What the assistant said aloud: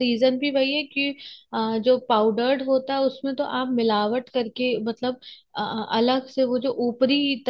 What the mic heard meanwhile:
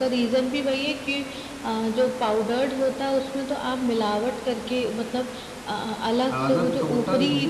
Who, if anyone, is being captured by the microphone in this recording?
both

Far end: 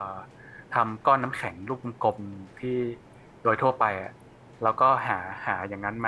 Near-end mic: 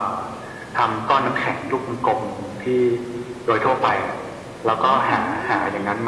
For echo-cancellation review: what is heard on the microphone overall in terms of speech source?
both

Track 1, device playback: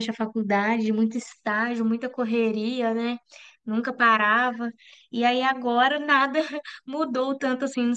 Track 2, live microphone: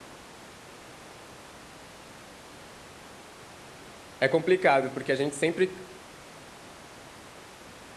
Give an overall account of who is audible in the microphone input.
user only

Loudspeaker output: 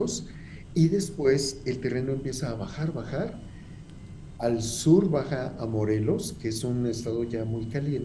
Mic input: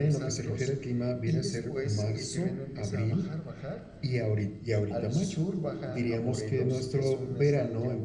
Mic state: both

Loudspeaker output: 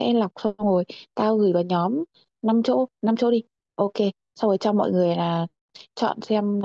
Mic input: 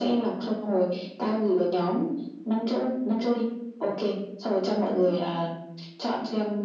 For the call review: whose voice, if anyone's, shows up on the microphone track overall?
echo only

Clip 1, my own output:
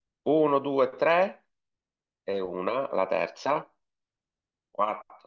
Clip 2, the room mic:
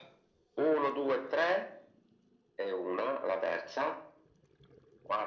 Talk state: echo only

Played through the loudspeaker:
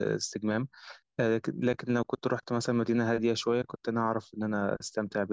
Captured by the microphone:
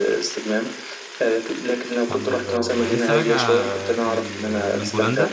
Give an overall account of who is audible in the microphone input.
both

